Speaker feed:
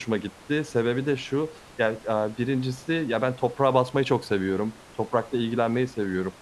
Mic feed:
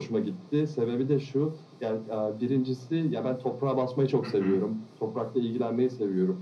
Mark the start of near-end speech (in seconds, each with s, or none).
4.2 s